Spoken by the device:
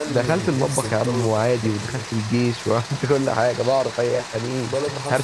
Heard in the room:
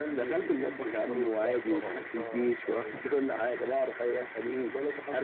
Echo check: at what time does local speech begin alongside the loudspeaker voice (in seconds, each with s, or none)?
1.4 s